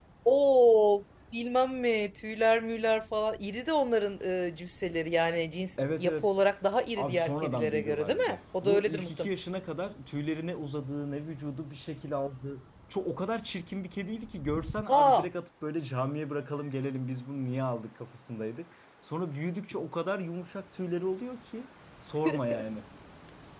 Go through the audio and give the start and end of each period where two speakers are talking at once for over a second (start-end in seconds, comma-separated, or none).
7.0-9.3